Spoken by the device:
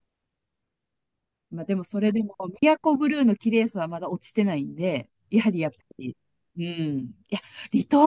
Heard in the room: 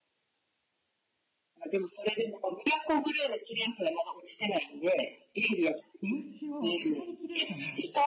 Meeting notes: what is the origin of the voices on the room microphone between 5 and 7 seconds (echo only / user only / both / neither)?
both